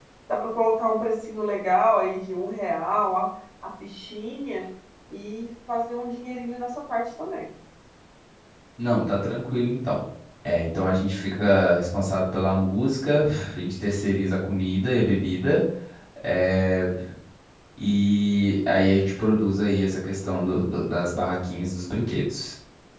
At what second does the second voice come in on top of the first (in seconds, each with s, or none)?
none